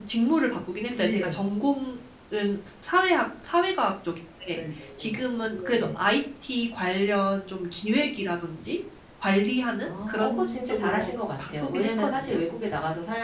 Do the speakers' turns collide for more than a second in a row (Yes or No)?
Yes